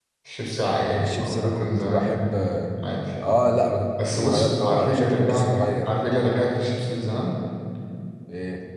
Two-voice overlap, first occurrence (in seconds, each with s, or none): 0.8 s